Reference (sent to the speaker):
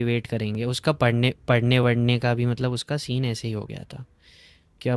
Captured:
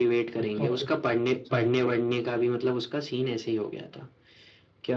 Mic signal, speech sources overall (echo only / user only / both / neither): both